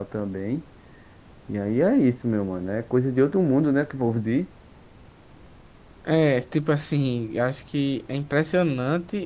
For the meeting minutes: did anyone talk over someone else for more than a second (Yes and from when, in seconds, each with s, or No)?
No